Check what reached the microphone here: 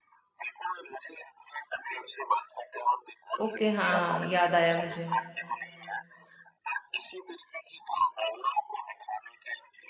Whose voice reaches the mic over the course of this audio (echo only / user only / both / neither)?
both